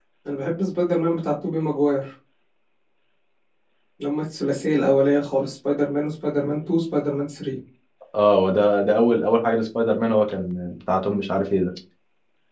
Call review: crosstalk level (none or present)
none